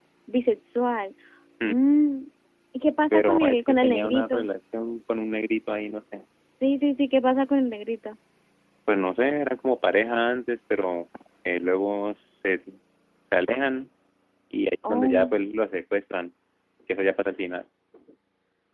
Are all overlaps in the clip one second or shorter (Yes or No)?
No